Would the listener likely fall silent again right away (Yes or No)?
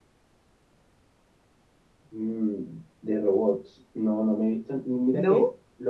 Yes